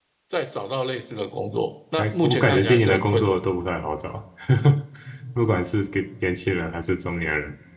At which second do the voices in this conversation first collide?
2.0 s

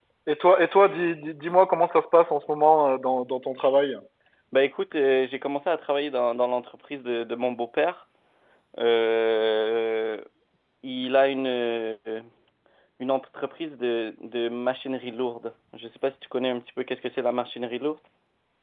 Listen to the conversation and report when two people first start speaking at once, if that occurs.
none

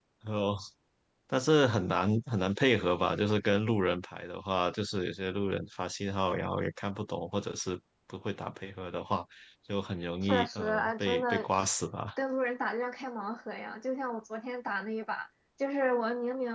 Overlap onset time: 10.2 s

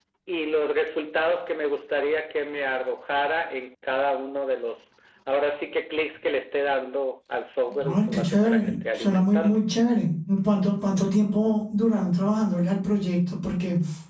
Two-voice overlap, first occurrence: 7.8 s

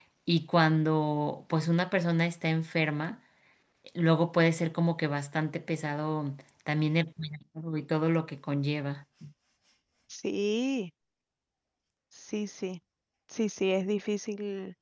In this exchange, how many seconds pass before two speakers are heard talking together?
none

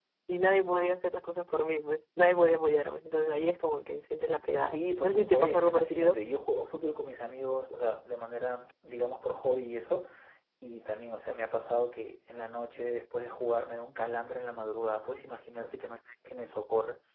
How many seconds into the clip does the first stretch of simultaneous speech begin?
4.7 s

